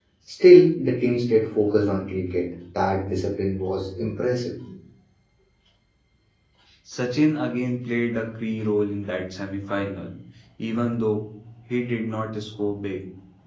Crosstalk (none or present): none